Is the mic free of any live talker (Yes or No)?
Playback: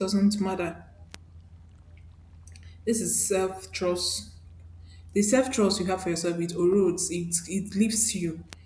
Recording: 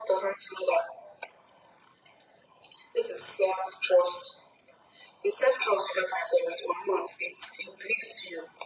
Yes